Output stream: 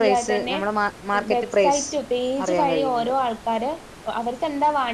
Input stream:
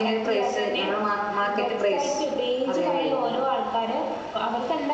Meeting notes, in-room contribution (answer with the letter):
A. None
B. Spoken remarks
A